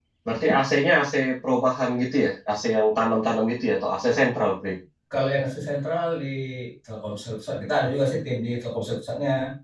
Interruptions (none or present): none